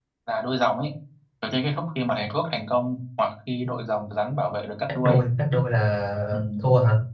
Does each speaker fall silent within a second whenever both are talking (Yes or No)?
Yes